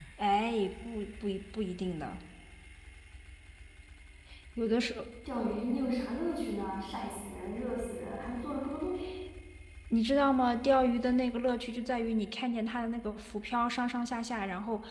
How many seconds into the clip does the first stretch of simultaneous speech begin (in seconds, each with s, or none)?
none